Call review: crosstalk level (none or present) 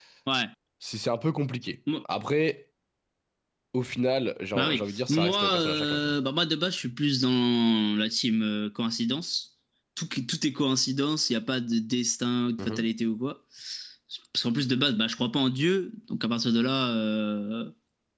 present